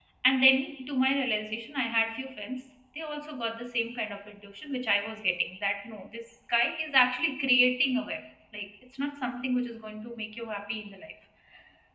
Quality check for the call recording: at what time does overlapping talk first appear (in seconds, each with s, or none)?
none